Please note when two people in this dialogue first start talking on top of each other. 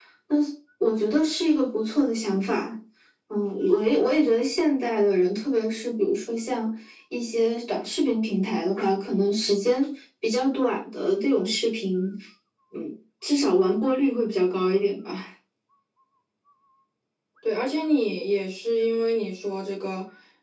none

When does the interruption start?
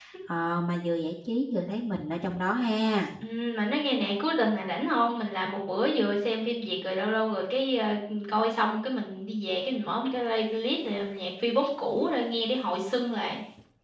none

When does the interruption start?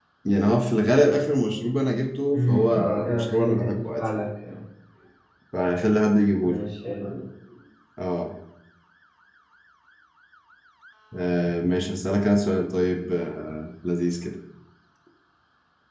2 s

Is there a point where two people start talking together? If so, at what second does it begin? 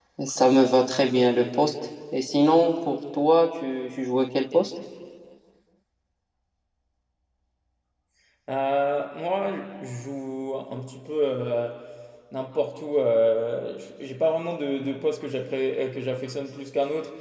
none

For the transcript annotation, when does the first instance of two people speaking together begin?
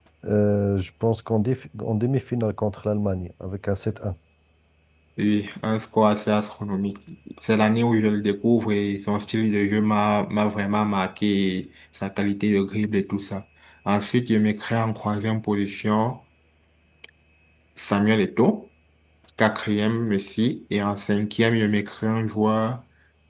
none

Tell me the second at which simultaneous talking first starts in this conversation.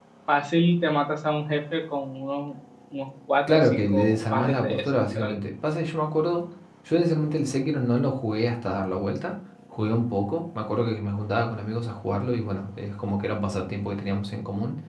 3 s

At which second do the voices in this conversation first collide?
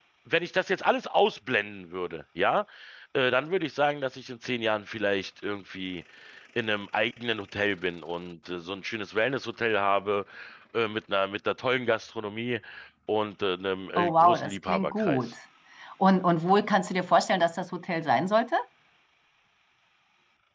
14 s

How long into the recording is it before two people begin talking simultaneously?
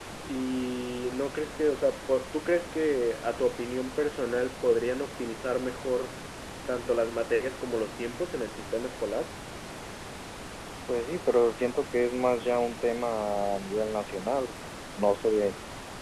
none

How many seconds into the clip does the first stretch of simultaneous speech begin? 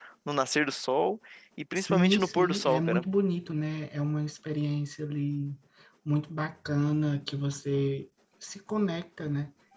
2 s

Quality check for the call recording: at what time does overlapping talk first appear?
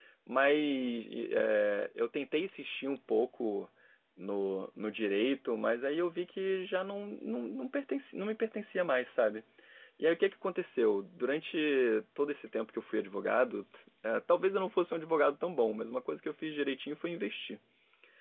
none

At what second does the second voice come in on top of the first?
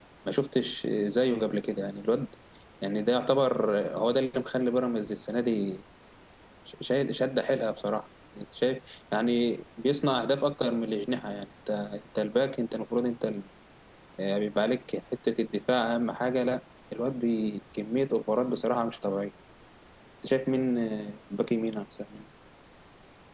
none

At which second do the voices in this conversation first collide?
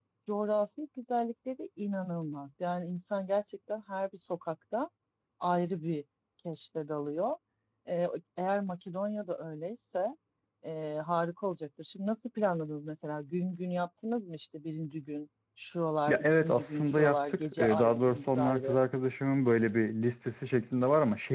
16 s

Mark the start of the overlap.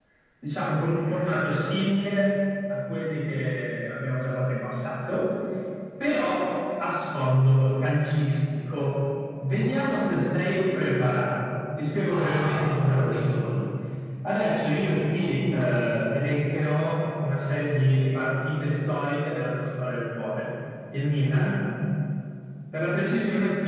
12 s

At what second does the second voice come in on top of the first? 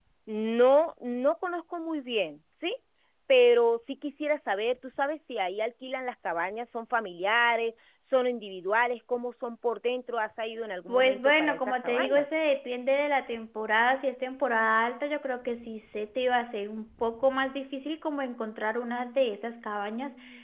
11 s

